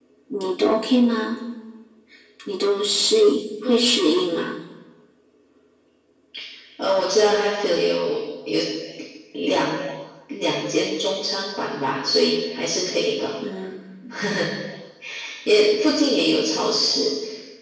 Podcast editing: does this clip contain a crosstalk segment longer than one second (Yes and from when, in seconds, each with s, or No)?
No